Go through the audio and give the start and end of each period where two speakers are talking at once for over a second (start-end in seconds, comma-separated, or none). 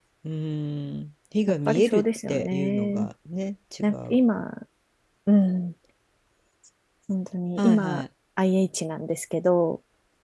1.7-3.1